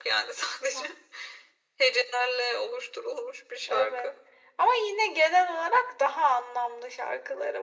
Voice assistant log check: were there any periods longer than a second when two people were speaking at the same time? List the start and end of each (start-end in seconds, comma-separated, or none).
none